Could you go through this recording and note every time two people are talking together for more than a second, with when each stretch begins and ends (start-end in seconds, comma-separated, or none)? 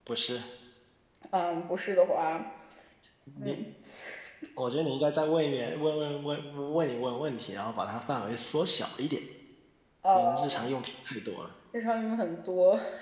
none